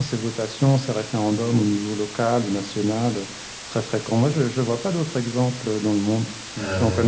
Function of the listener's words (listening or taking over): taking over